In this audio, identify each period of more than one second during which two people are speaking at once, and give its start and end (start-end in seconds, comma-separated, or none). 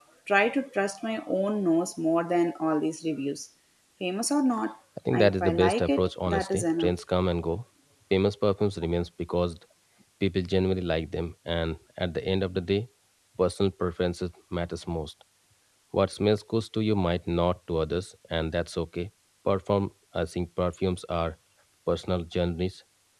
5.1-6.9